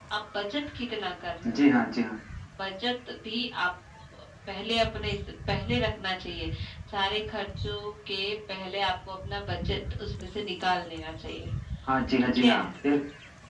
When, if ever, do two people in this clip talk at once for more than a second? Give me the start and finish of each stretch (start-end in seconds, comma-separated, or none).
none